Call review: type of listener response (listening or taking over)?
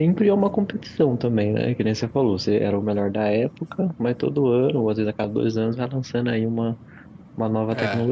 taking over